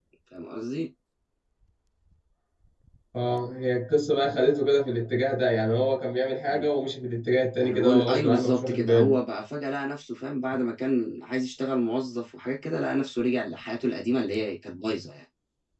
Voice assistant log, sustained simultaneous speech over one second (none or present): present